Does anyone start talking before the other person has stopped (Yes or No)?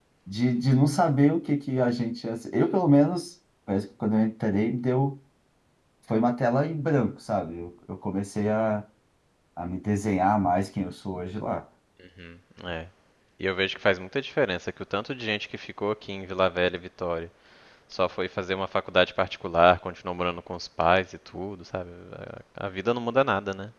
No